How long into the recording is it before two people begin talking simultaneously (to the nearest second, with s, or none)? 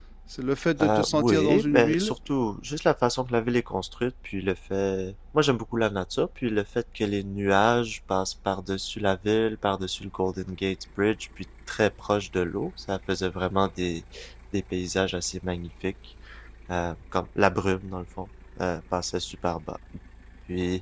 1 s